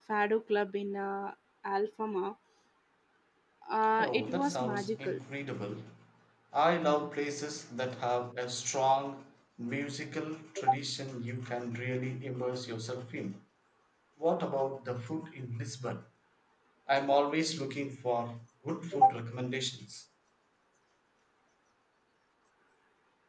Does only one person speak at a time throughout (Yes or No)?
No